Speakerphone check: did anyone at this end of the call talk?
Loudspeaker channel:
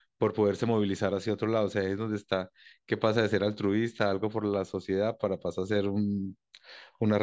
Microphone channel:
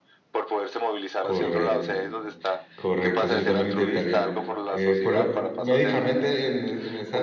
Yes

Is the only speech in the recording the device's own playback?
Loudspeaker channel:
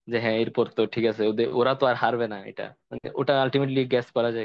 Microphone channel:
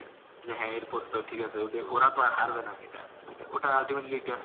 Yes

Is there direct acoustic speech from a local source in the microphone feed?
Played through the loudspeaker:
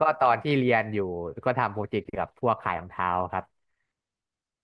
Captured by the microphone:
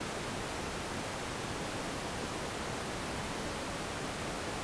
No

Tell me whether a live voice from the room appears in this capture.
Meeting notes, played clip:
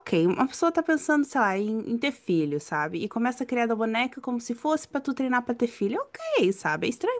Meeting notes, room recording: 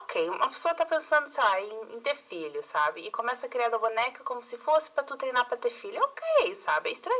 No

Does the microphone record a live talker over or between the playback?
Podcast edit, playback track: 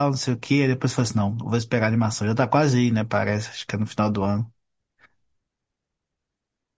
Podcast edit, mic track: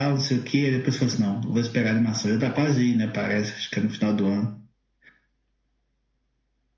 No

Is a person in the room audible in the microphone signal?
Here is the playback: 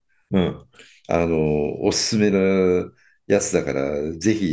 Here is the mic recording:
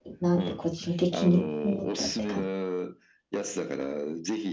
Yes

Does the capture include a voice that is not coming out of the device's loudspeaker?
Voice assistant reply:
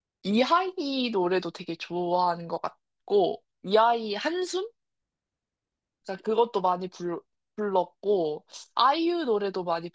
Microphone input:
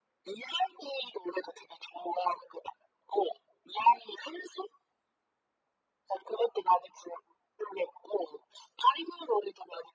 No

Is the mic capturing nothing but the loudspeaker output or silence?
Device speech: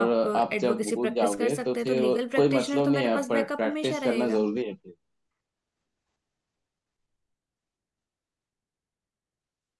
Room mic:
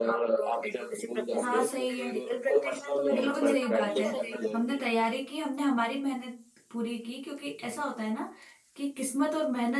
No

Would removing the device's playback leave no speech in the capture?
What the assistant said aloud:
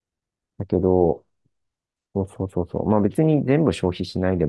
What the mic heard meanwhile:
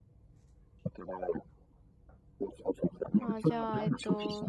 No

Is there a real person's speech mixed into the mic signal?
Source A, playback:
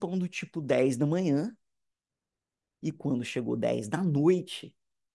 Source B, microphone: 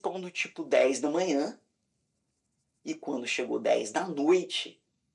No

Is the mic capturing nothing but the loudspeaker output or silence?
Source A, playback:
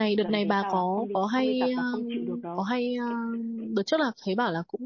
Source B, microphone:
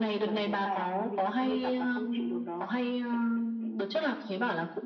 Yes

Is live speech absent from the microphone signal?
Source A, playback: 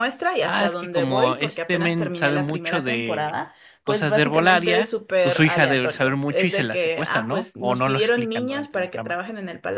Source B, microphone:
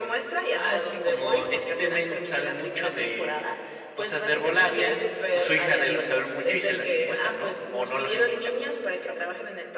Yes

